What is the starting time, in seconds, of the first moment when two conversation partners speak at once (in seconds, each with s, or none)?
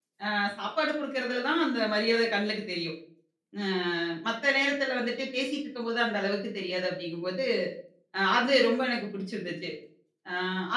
none